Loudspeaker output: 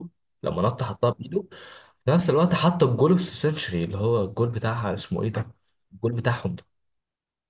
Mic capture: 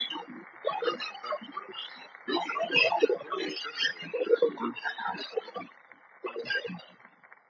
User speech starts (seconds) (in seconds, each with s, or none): none